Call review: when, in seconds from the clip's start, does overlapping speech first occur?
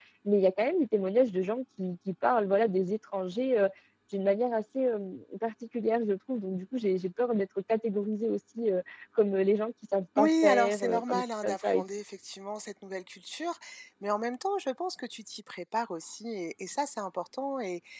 10.2 s

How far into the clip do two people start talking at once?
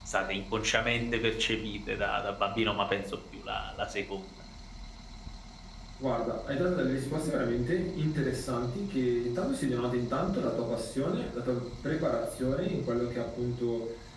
none

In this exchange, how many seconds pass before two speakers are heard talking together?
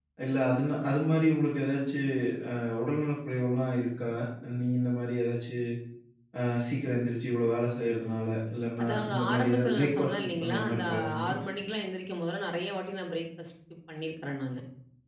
8.8 s

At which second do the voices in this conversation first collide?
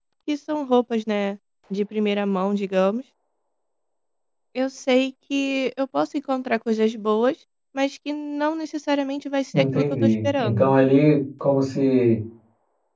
9.5 s

